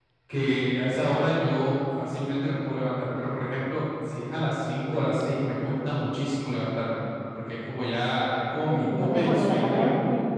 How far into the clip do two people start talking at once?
8.7 s

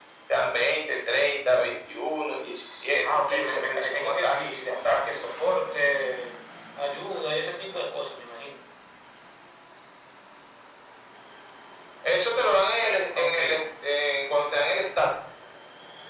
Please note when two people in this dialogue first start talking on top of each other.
3.0 s

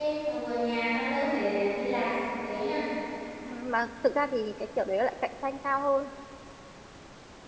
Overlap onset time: none

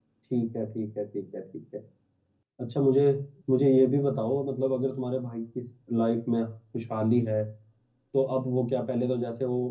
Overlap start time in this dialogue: none

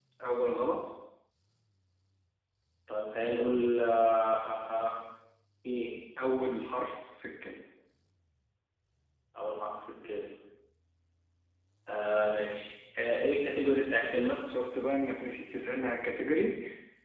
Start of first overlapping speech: none

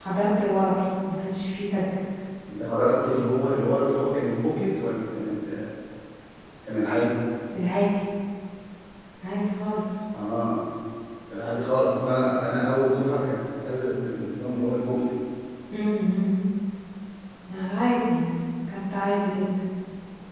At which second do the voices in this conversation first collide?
none

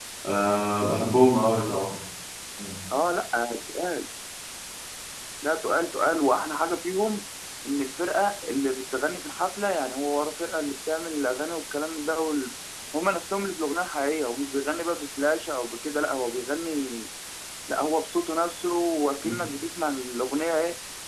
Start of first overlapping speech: none

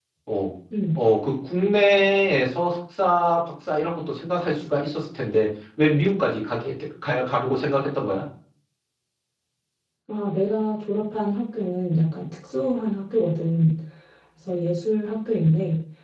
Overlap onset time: none

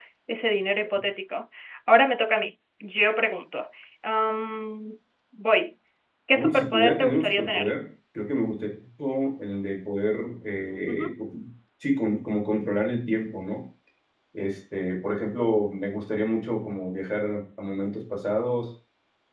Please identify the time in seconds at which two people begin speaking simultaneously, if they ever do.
6.3 s

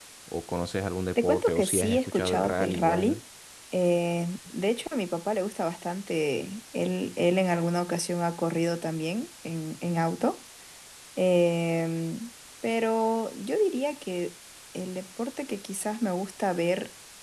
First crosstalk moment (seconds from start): 1.2 s

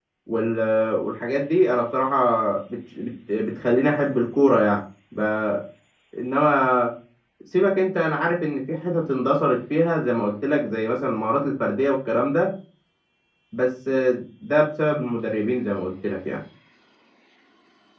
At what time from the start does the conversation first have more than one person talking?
none

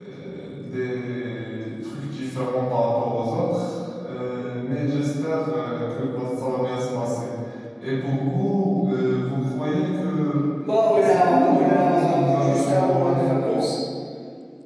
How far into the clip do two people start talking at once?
10.9 s

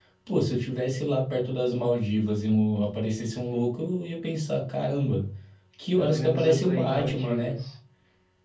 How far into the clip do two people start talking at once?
6.0 s

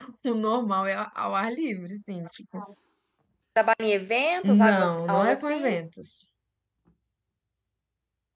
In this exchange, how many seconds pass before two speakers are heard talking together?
4.4 s

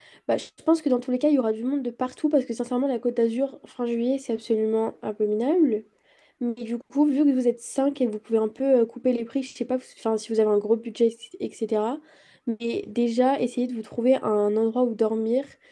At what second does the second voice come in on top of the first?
none

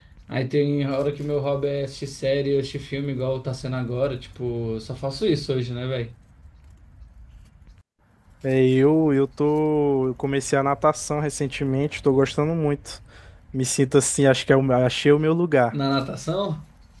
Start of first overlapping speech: none

